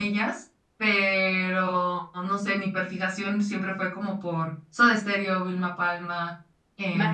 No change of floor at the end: Yes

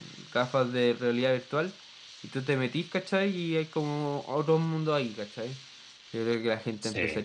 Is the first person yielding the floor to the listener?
No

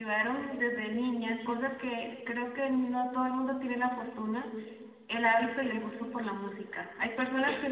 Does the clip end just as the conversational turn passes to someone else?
No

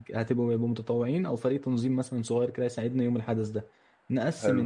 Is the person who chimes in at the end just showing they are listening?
Yes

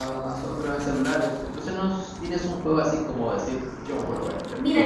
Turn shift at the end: Yes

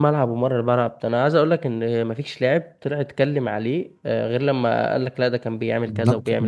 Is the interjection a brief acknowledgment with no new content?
No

